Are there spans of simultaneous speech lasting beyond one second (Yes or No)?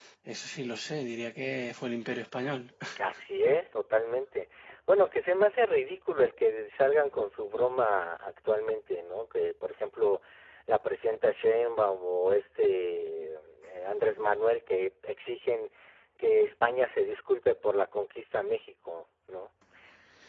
No